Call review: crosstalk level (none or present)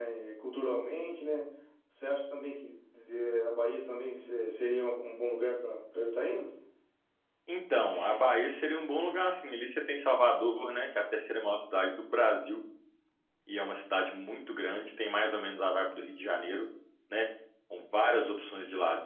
none